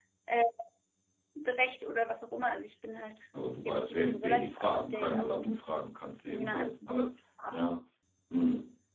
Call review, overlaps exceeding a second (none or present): present